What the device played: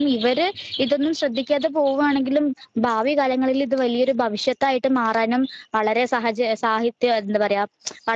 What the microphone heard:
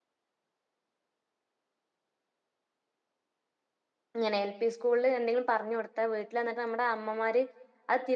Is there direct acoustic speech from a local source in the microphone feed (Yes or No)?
Yes